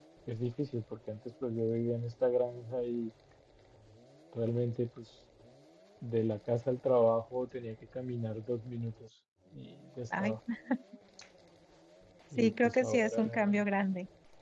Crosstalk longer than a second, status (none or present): present